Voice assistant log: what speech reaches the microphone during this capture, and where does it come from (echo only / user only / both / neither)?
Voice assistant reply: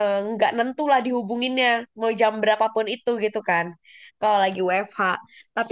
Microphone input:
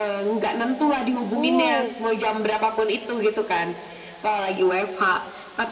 both